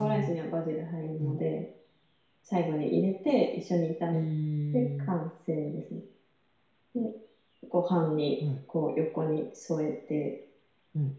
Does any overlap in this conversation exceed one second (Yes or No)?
No